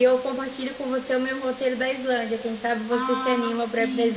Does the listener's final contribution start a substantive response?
Yes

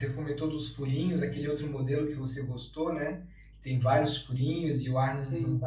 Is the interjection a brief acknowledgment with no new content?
Yes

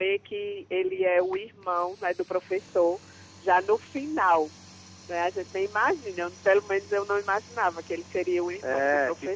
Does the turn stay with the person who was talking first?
No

